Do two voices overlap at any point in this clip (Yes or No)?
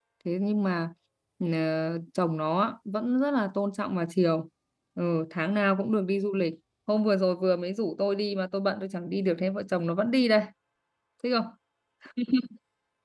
No